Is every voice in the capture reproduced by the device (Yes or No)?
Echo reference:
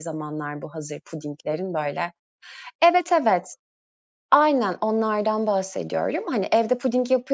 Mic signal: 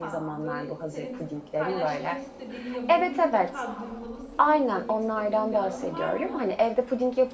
No